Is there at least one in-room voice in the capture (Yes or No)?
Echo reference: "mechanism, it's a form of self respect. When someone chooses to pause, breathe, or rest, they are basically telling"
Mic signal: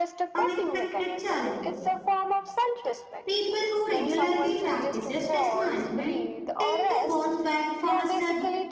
Yes